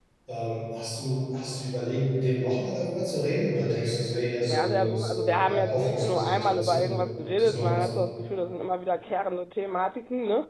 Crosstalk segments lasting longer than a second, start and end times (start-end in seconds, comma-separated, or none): 4.5-6.9